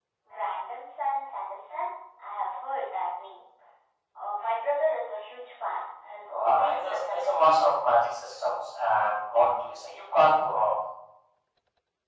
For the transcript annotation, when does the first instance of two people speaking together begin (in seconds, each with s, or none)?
6.4 s